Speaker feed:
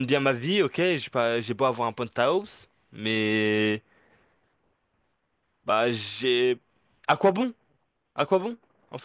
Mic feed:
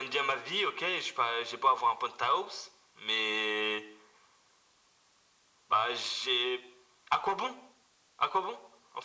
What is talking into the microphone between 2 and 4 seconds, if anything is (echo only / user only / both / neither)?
echo only